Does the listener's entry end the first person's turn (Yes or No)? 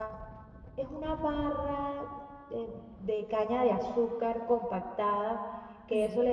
No